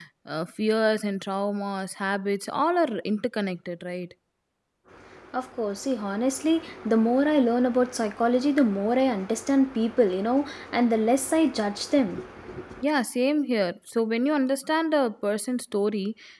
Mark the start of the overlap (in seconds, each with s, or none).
none